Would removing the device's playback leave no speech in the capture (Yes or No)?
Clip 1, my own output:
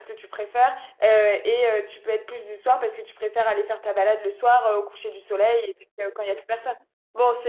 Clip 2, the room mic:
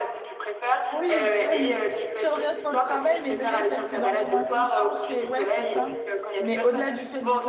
No